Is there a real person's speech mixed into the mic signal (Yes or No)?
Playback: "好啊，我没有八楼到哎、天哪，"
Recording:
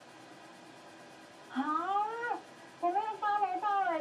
No